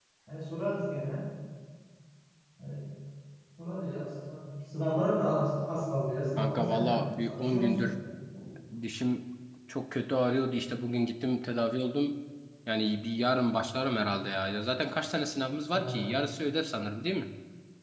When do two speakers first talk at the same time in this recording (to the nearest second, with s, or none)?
6 s